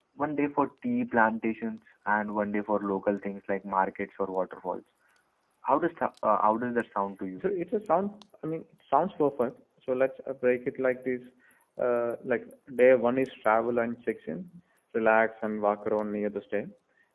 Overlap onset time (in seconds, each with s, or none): none